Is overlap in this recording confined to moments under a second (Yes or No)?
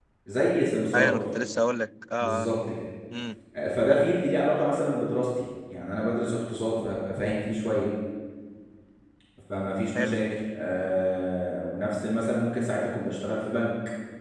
Yes